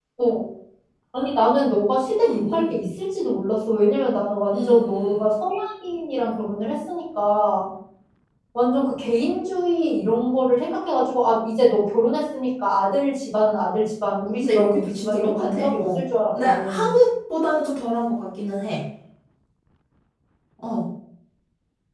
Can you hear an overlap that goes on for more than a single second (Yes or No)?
Yes